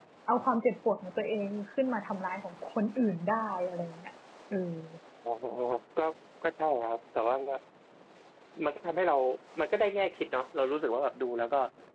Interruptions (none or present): none